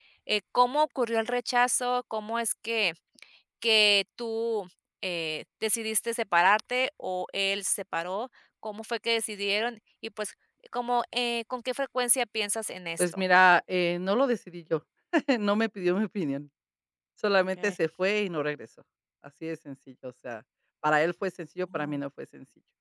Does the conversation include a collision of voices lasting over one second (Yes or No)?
No